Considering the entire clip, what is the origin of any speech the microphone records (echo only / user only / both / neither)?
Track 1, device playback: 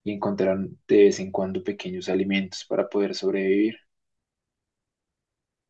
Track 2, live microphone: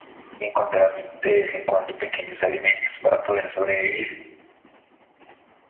echo only